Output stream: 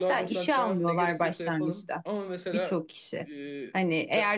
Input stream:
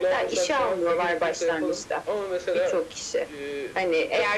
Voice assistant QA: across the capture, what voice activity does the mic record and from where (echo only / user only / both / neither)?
echo only